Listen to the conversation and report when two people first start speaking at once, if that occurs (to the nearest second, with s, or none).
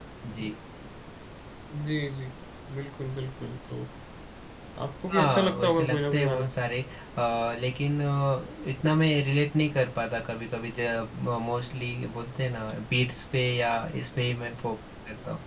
5 s